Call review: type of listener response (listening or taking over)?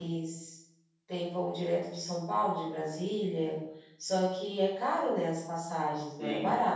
taking over